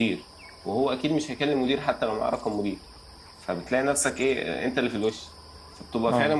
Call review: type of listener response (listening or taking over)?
listening